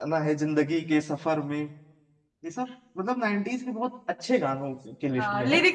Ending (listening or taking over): taking over